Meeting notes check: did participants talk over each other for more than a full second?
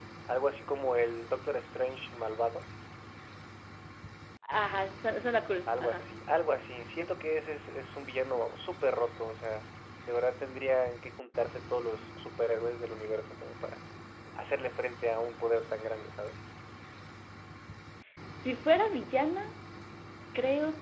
No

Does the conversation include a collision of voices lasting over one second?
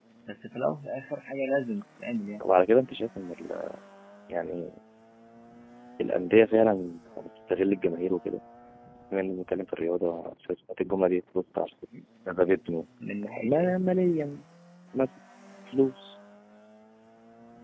No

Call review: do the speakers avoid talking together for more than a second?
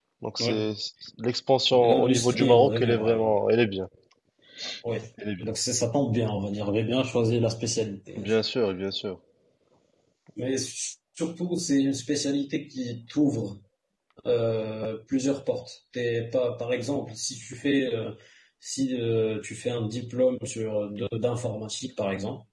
No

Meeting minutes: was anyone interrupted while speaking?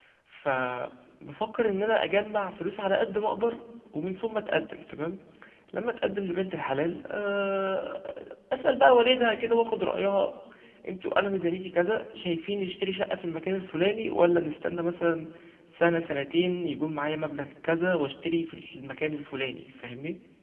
No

